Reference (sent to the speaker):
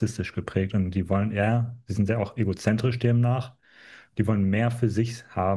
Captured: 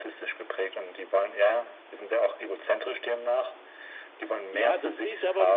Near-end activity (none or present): present